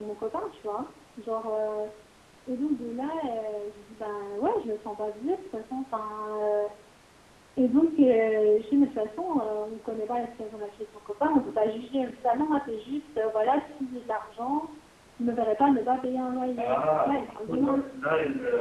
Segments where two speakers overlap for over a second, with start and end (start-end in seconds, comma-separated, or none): 16.6-17.8